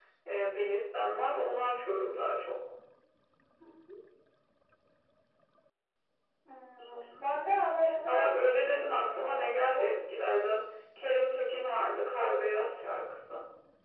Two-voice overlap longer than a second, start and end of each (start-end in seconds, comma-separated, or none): 8.1-9.9